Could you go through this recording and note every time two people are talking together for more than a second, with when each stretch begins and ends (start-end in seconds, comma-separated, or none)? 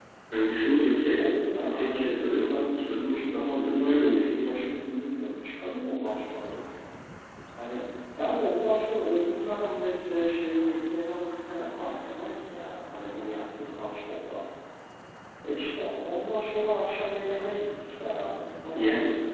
1.7-4.8